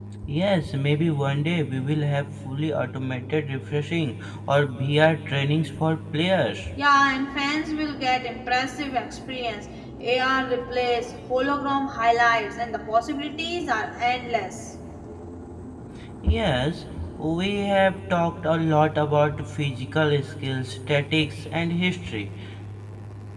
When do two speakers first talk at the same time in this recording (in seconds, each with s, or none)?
none